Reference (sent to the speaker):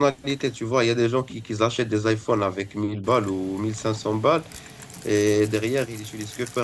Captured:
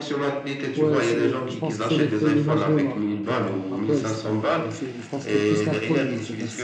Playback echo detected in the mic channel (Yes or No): Yes